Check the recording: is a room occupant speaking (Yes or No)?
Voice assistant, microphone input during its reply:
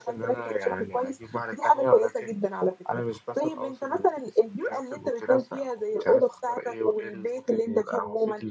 No